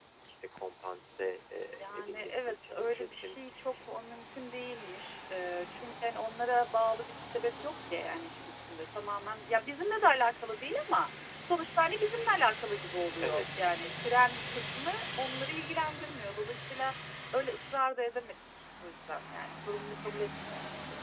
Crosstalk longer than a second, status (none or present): present